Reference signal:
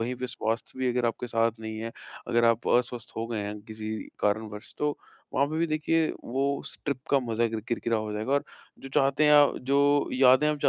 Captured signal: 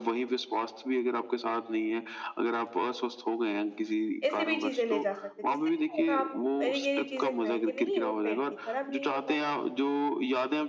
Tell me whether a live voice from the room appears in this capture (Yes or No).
Yes